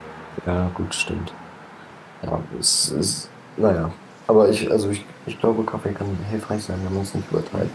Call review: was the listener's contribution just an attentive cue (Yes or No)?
No